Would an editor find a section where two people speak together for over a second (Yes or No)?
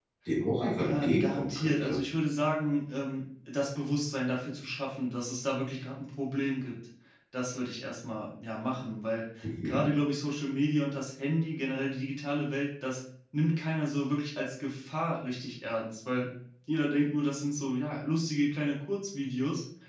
Yes